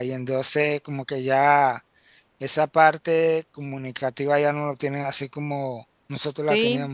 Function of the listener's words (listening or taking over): taking over